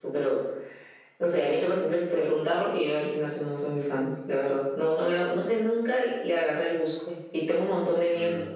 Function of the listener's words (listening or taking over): listening